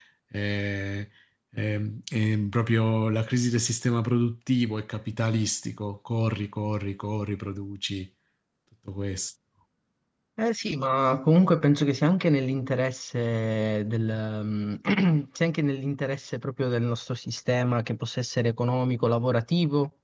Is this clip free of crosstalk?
Yes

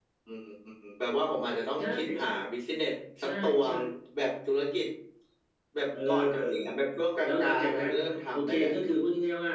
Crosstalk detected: Yes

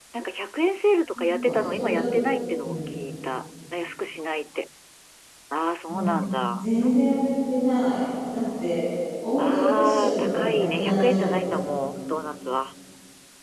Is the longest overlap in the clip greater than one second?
Yes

